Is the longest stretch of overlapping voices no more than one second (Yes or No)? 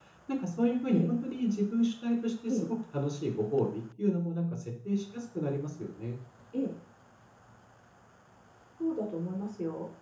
Yes